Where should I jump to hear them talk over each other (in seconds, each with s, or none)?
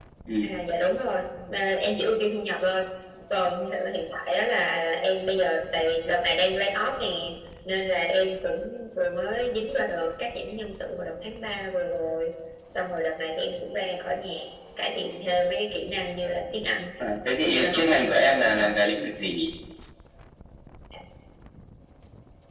17.4 s